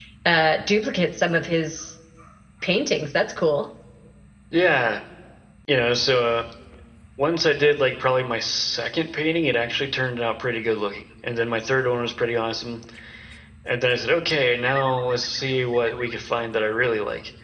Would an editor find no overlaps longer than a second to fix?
Yes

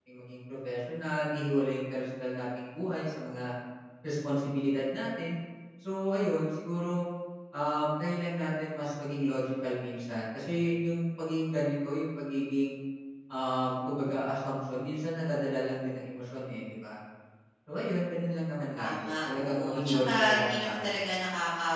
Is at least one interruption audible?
Yes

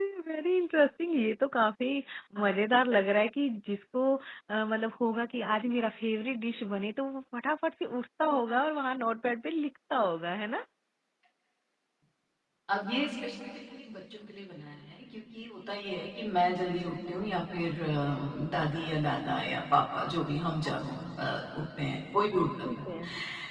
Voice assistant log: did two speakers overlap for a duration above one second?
No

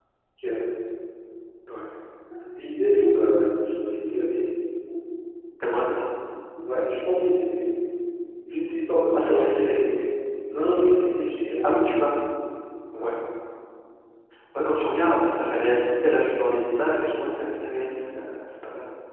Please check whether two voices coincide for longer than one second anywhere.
No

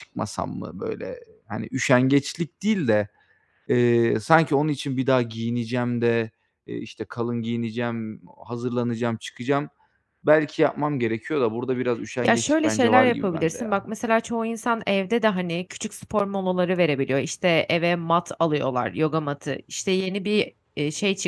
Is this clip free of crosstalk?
No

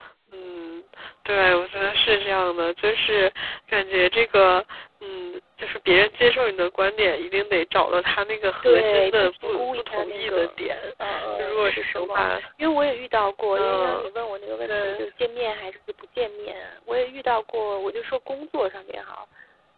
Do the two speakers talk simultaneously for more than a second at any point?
Yes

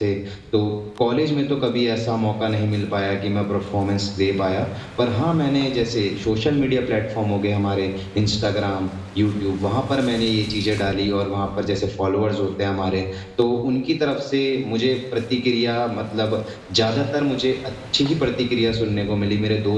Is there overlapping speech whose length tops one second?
No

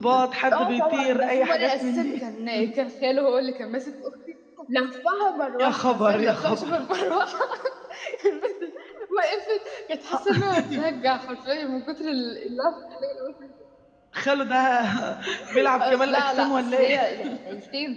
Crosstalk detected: Yes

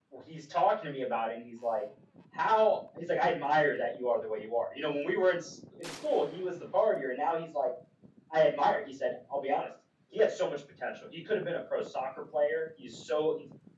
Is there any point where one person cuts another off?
No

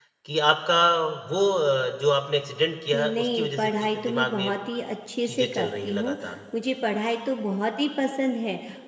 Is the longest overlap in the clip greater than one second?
Yes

